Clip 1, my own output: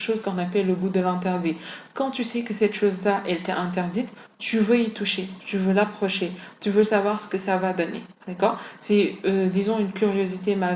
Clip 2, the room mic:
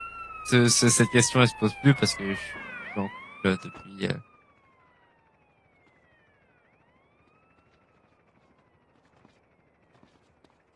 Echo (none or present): none